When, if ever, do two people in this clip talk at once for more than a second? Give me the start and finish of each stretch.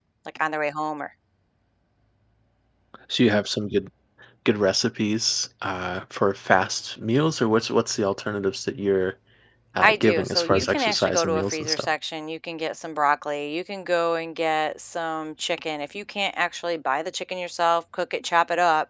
9.8-11.9

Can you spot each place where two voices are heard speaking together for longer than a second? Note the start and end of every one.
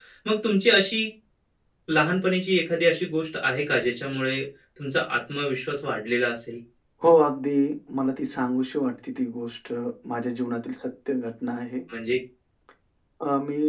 none

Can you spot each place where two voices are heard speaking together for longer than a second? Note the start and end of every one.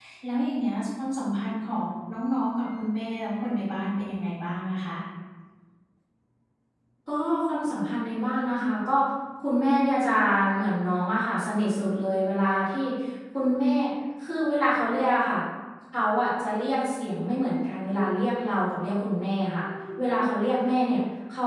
none

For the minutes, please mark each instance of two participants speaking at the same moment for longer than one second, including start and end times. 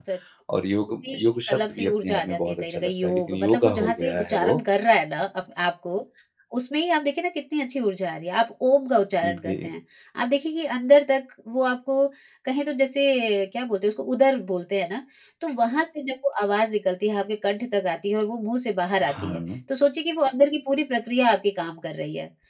0.9-4.6

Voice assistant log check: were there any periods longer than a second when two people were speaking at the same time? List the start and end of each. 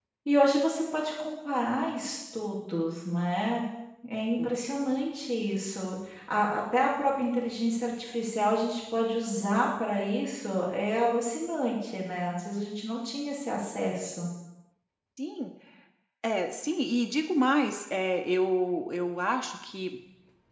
none

